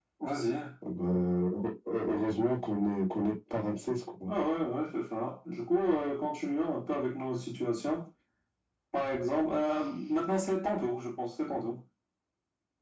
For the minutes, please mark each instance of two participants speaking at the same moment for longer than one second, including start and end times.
none

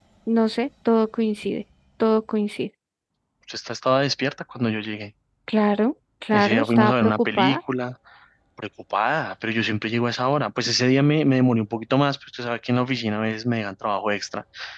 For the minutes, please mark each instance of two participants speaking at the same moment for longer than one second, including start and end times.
6.3-7.6

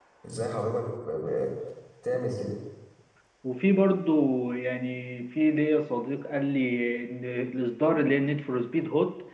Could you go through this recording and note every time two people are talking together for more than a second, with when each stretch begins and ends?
none

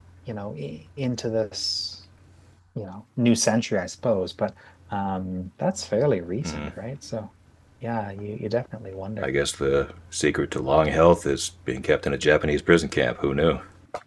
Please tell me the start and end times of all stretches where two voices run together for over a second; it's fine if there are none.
none

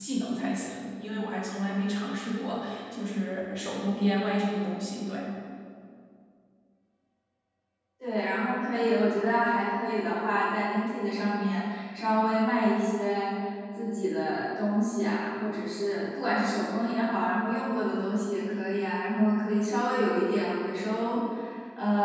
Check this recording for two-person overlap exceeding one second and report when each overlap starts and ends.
none

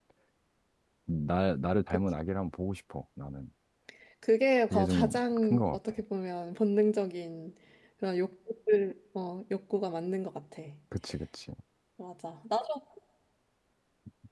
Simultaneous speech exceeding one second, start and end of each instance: 4.7-6.0

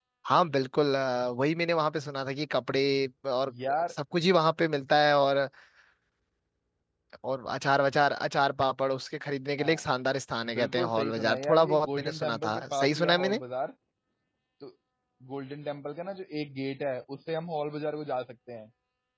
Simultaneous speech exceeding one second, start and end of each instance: 10.5-13.4

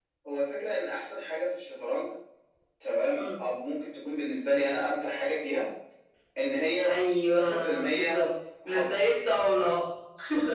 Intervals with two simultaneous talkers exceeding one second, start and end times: 6.8-8.2

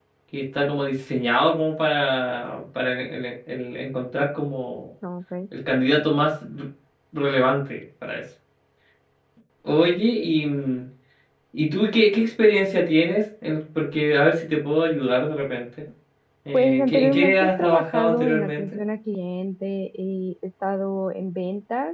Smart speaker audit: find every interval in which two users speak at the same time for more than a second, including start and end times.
16.5-18.8

